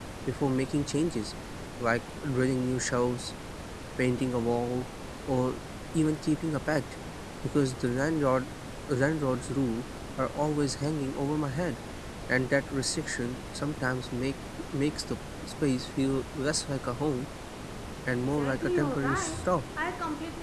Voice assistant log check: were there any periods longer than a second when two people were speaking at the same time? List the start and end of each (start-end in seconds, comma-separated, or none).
18.2-19.6